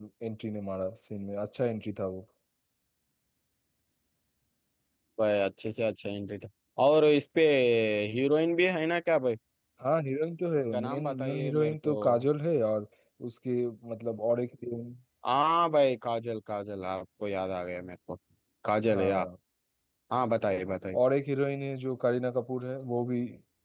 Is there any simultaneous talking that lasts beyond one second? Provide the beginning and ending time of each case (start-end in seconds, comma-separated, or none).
10.7-11.9